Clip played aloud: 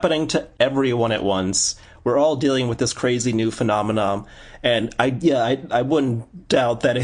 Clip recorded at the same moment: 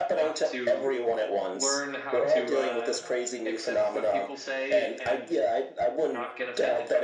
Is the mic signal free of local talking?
No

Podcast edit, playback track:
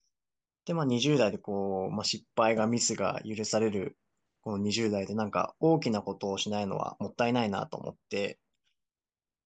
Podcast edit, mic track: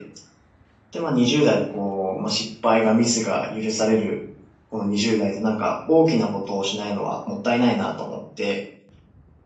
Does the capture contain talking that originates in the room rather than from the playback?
No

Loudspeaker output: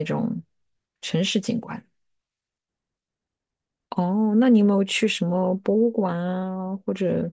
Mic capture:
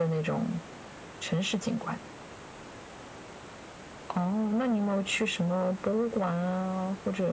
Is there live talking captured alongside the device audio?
No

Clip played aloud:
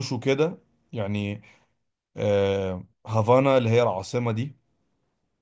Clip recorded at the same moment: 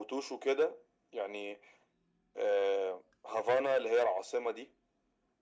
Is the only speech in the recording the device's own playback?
Yes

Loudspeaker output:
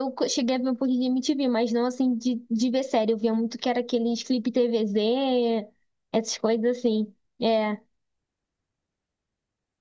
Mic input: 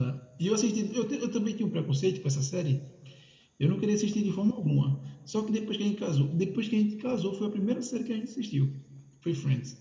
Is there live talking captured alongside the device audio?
Yes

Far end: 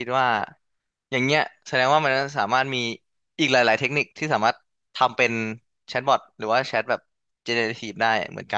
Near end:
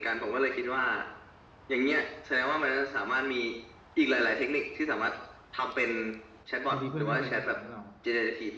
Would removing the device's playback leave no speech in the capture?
No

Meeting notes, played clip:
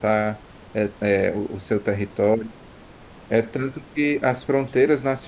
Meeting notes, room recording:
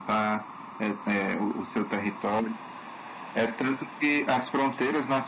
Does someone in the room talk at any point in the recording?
No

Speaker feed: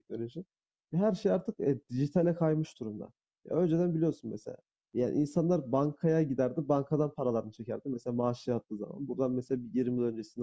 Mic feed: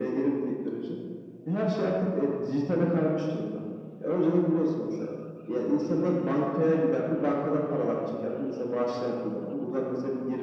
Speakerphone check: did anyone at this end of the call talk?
No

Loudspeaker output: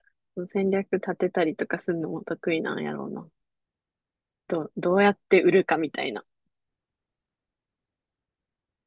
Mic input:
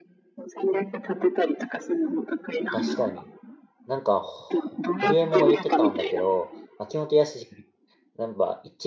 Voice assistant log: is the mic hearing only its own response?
No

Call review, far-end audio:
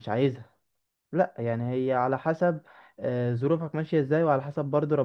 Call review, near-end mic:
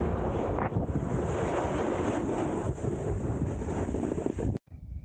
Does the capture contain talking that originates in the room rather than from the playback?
No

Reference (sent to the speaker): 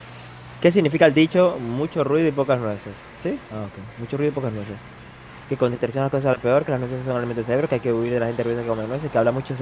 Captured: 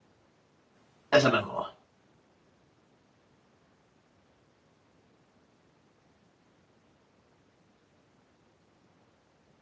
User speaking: Yes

